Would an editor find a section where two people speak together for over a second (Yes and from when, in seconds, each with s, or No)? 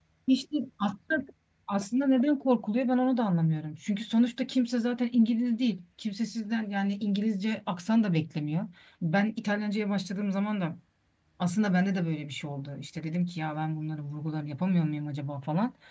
No